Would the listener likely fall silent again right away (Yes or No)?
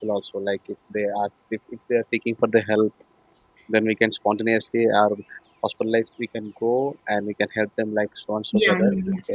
No